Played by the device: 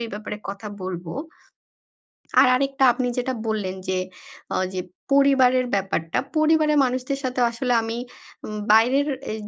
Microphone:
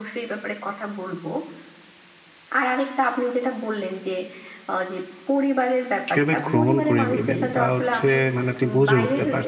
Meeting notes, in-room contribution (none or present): present